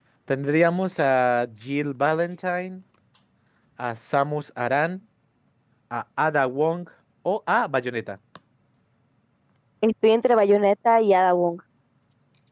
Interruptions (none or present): none